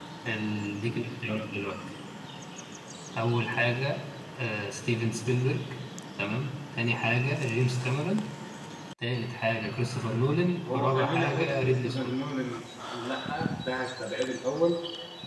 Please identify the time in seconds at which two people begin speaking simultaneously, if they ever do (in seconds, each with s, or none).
10.6 s